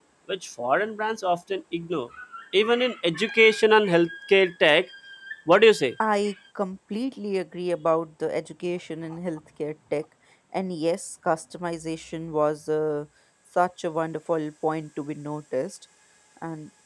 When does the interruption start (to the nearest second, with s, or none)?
none